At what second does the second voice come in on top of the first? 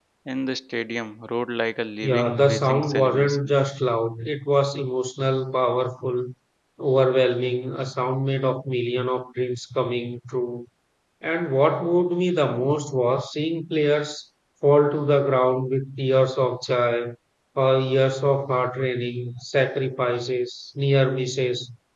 2.0 s

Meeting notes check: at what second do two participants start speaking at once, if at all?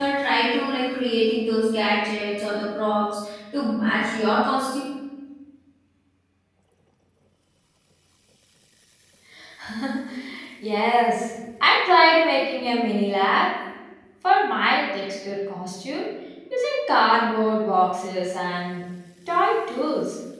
none

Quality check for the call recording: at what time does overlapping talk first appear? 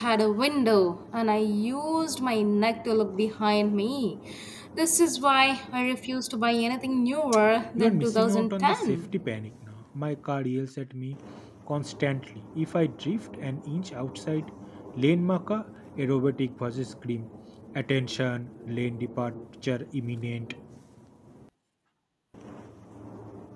7.8 s

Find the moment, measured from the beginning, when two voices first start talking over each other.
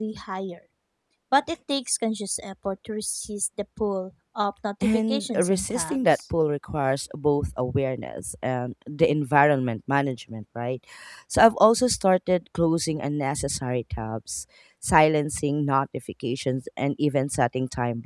4.8 s

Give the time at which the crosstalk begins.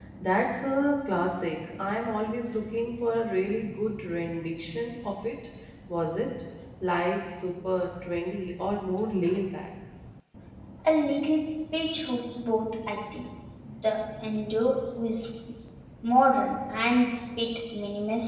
none

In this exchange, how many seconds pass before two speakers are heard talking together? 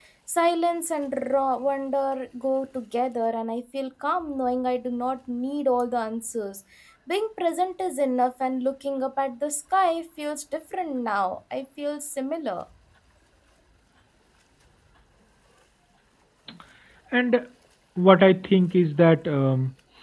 none

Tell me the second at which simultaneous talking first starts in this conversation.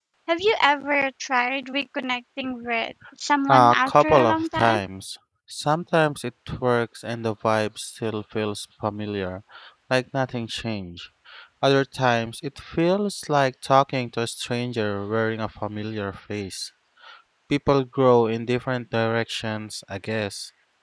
3.5 s

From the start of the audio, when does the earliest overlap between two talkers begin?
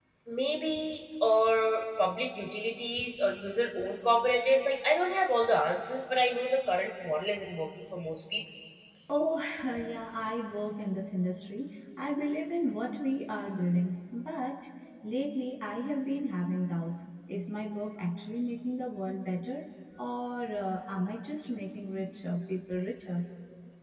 none

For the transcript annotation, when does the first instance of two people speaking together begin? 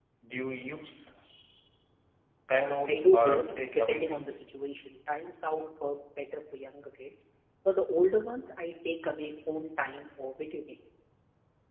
2.9 s

